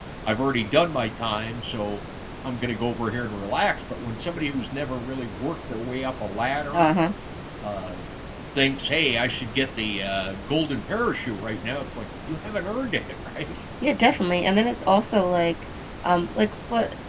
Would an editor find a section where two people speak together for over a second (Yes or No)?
No